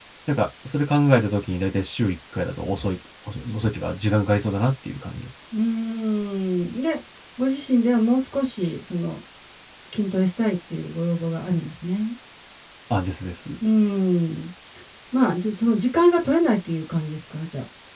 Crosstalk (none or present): none